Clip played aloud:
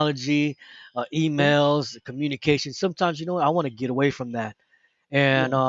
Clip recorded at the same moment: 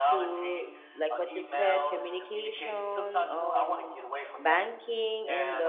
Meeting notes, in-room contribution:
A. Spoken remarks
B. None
A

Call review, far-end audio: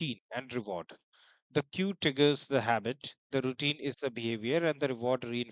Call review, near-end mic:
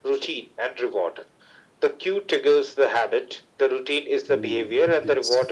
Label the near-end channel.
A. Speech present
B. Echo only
A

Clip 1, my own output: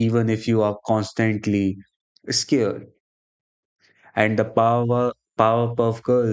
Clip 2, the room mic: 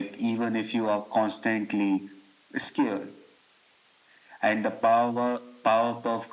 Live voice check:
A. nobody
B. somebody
A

